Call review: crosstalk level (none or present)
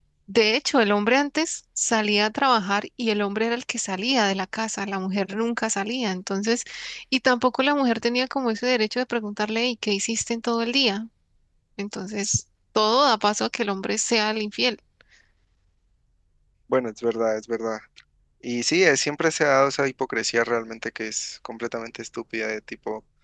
none